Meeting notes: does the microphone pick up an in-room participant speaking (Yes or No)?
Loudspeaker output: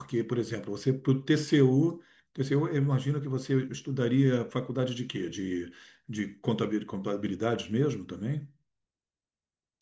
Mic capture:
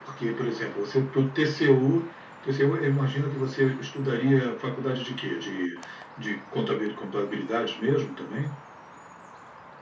No